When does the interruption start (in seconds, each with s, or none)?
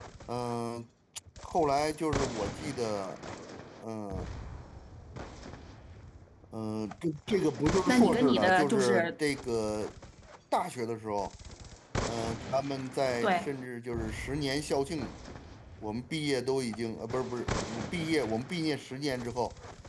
7.8 s